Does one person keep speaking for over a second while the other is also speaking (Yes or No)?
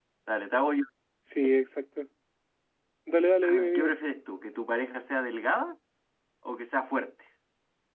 No